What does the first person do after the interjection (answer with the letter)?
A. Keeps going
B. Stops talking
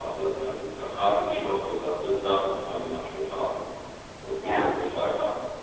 A